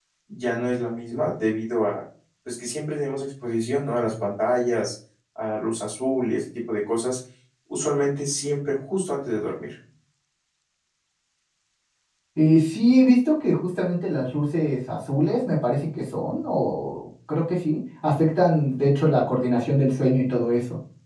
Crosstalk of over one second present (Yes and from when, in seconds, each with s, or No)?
No